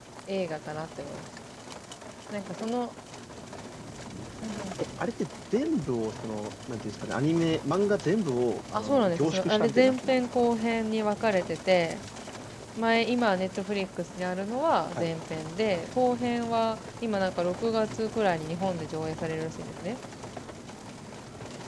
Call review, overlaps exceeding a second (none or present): present